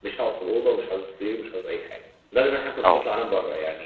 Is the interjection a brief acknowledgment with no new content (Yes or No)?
Yes